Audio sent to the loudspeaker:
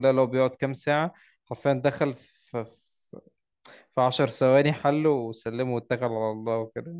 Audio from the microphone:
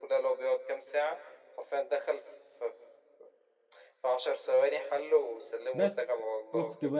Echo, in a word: present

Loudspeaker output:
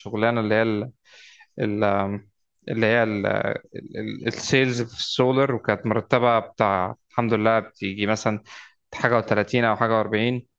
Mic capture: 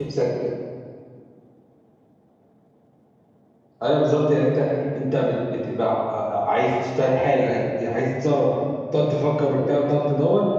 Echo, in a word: none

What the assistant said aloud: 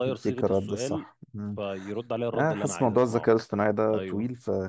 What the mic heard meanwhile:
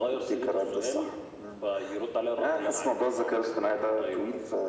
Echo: present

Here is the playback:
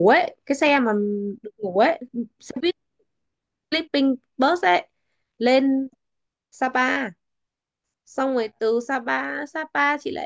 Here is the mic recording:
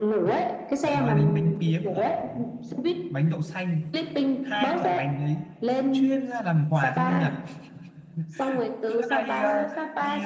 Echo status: present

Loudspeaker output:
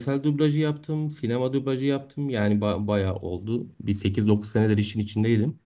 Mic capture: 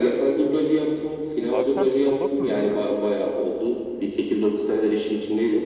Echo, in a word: present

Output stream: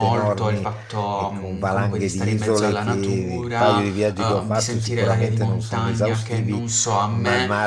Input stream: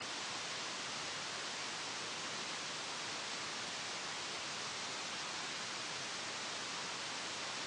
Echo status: none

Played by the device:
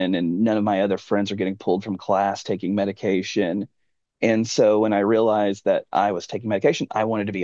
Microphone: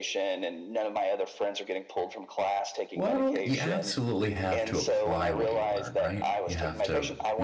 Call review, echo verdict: present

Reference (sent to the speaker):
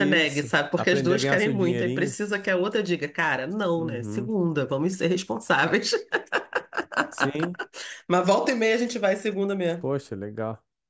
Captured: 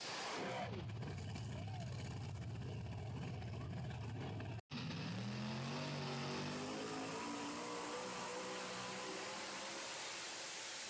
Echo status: none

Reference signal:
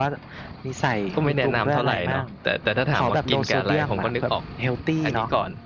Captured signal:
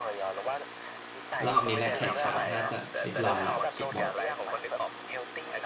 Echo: present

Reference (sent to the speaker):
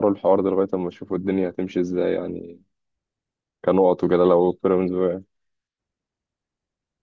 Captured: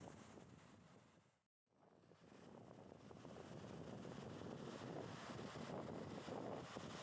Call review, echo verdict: none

